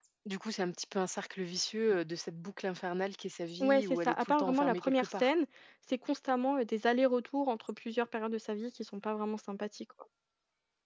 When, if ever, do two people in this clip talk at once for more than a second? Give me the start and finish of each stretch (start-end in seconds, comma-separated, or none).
3.6-5.3